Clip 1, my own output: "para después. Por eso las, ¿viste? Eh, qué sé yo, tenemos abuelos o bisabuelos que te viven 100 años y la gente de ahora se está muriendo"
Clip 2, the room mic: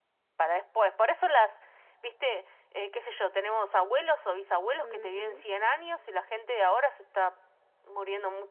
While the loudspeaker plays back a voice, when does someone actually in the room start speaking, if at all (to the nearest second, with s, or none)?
5 s